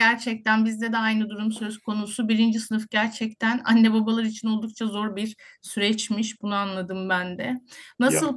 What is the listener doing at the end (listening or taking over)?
listening